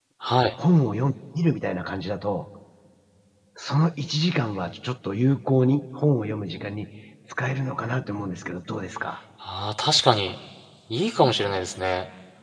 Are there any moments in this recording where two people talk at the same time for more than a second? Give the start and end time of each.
none

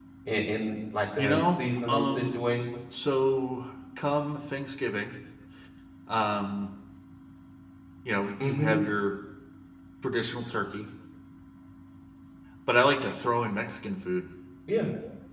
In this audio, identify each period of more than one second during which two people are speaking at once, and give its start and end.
1.2-2.4

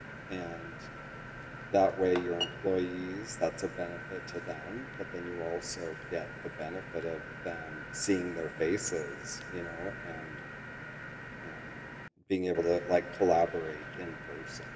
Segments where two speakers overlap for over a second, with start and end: none

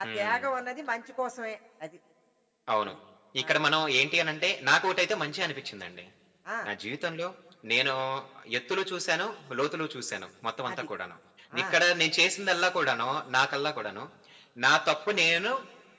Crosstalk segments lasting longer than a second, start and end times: none

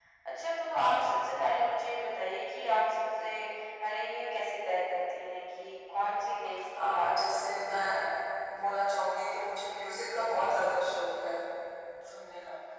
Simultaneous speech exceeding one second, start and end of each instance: 6.8-8.1

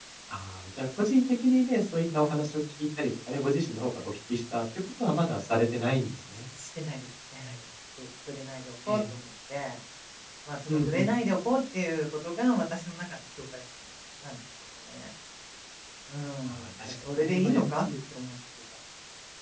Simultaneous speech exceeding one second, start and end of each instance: 16.5-17.9

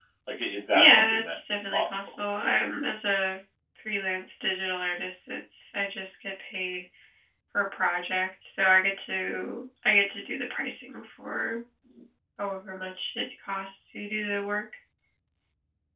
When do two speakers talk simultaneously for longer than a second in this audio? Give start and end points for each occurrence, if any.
0.7-2.1

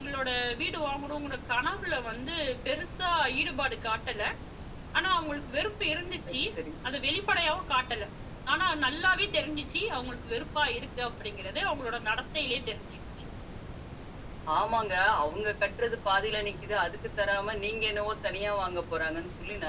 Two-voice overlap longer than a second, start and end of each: none

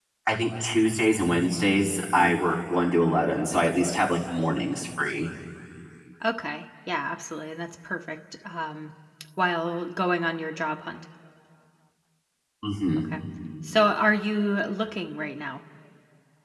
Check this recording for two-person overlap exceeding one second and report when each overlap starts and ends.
none

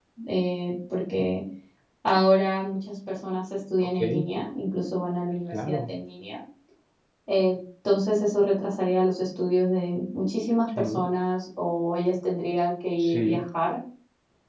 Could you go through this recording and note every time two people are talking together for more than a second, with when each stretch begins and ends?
none

